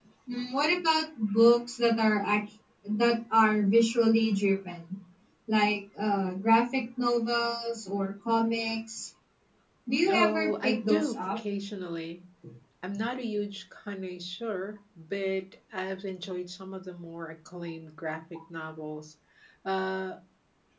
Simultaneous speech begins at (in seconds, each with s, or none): 10.1 s